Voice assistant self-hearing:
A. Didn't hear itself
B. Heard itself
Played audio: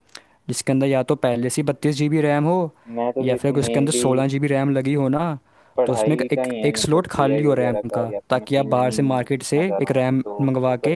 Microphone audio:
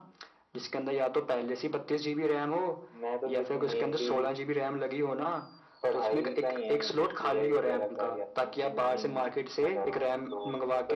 B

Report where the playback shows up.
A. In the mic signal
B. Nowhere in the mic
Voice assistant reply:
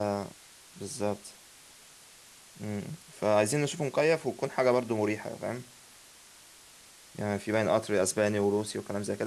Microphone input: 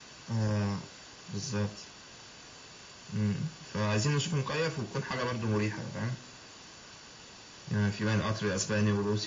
A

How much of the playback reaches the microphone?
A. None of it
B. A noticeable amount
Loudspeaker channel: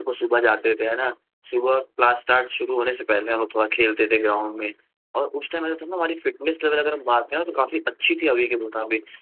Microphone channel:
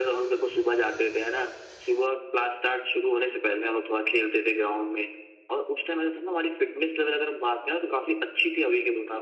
B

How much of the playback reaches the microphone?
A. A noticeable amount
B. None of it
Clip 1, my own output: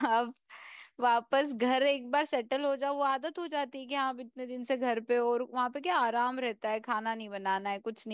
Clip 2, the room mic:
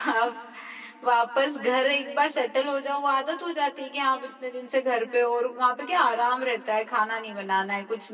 A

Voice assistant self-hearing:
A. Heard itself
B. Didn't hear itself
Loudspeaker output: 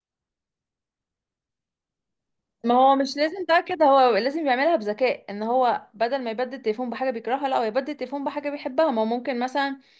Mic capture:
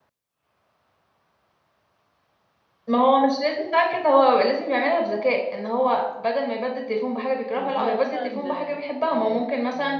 A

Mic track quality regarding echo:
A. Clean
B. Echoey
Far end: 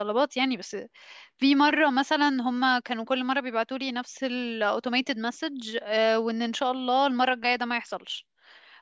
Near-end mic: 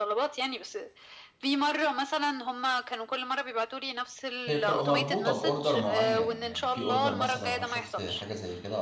B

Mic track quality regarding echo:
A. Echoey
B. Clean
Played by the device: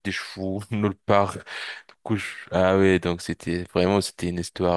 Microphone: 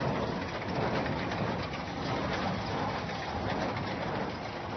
B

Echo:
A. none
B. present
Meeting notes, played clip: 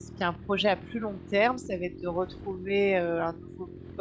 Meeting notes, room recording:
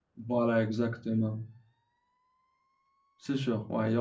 A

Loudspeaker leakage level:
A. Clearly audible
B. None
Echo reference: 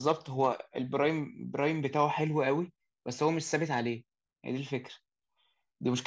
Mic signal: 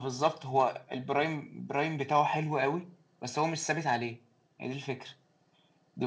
A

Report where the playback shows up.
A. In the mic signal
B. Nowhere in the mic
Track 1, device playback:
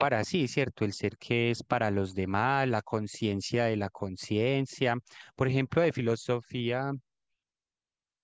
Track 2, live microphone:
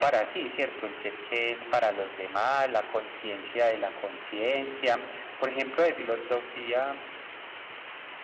A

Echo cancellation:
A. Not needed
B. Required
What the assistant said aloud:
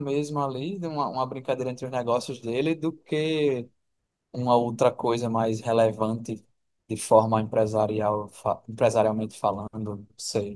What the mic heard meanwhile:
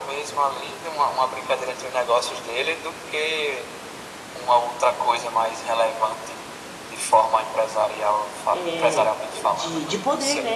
B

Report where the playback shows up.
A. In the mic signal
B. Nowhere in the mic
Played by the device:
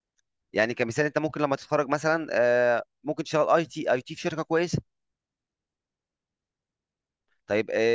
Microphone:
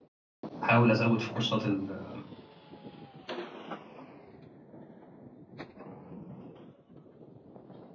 B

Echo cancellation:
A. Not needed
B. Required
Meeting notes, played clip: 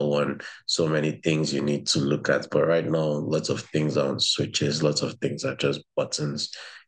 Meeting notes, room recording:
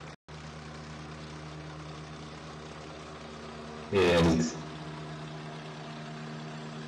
A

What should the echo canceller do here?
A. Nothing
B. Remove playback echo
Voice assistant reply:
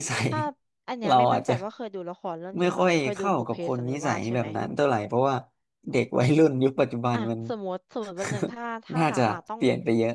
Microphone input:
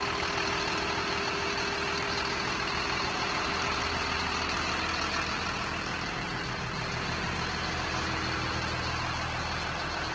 A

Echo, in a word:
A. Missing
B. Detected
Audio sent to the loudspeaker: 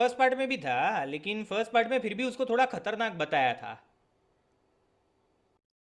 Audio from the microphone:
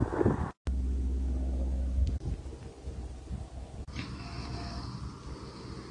A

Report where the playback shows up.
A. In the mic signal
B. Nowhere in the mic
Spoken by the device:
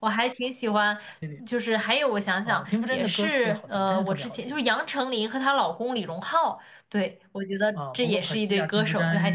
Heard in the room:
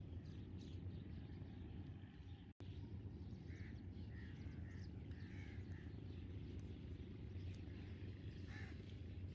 B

